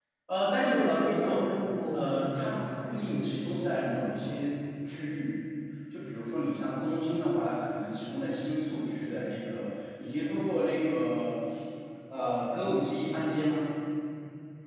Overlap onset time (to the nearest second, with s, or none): 1 s